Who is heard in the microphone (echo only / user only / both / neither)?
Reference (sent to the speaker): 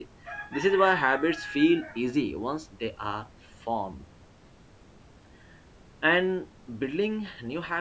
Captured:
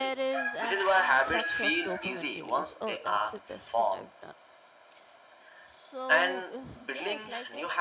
both